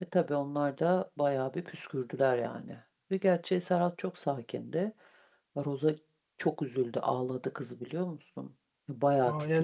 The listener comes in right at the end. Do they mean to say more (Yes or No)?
Yes